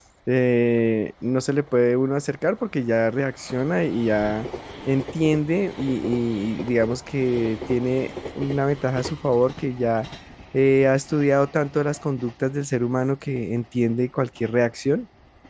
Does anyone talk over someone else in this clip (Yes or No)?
No